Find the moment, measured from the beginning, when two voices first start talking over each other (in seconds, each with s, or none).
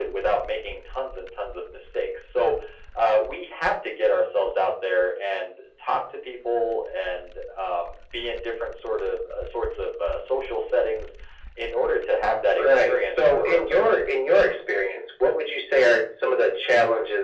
12.6 s